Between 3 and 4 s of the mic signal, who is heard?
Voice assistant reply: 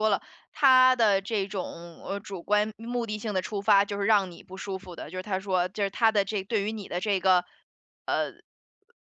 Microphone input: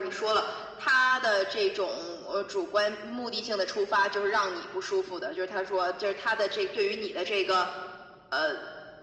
echo only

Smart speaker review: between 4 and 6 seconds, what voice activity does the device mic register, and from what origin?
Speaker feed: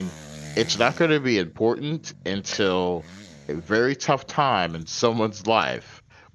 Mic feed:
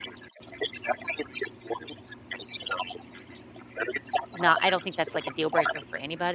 both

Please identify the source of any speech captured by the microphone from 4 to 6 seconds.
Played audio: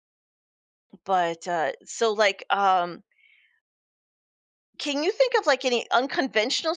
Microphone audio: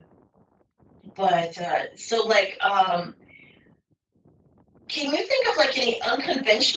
echo only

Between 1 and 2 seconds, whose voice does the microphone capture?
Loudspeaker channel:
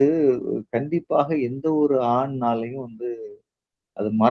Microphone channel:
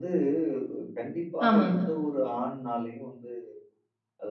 both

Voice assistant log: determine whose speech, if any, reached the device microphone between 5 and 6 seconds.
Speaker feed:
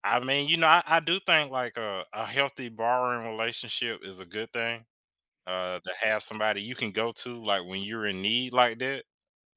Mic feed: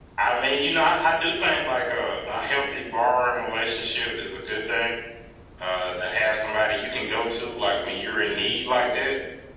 echo only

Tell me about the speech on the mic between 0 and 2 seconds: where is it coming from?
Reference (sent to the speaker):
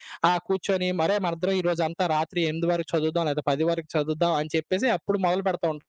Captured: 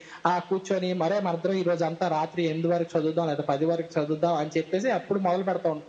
echo only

